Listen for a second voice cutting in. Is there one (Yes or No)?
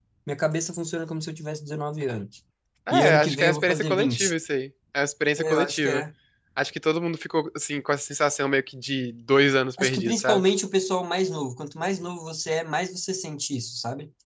Yes